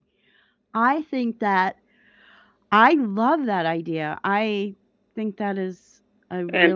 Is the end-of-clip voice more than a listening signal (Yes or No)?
Yes